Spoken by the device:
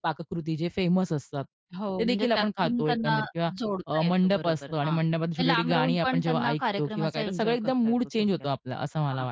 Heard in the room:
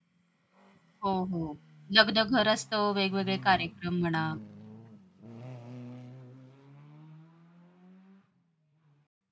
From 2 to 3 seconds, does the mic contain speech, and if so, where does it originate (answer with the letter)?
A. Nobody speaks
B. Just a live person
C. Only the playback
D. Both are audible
B